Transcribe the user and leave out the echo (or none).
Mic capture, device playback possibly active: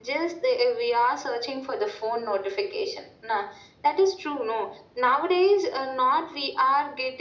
none